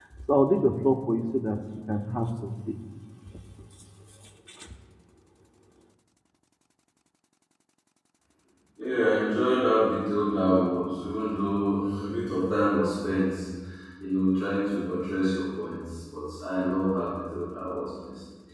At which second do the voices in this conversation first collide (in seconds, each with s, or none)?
none